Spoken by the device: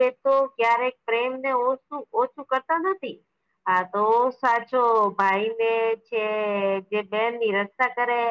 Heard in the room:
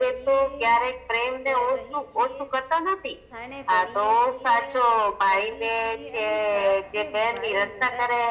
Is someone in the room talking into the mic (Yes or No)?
Yes